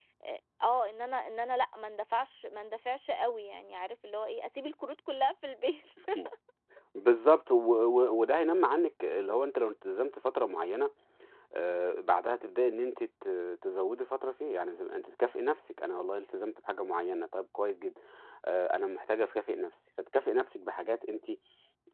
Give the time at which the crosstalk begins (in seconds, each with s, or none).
none